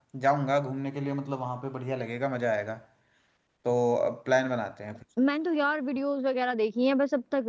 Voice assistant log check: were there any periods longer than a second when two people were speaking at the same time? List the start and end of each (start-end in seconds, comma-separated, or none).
none